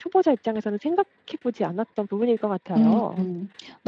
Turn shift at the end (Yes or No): Yes